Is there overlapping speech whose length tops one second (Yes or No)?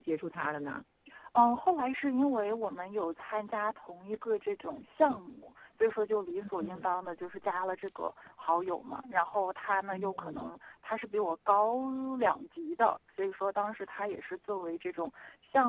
No